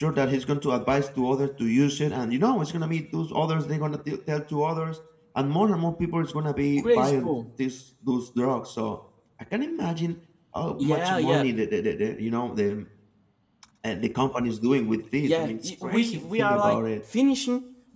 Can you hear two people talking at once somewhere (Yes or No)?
Yes